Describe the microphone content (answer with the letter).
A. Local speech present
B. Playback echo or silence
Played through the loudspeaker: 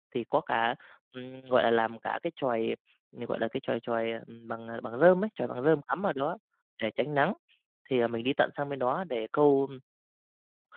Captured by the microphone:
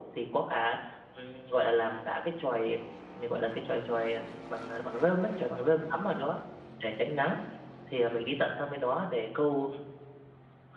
B